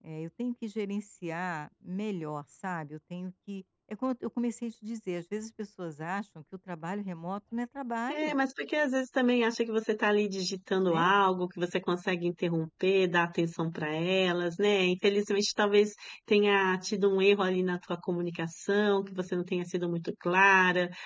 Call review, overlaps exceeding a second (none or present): none